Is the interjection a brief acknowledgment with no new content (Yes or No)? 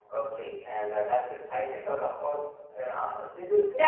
No